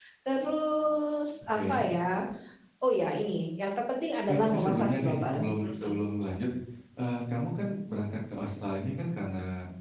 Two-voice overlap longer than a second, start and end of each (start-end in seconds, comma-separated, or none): 4.3-6.0